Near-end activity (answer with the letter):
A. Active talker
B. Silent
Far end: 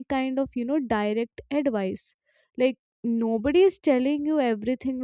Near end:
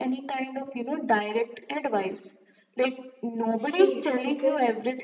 A